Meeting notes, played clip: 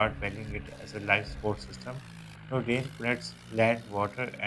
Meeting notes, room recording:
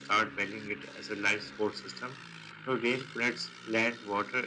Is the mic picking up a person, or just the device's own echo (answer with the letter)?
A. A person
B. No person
B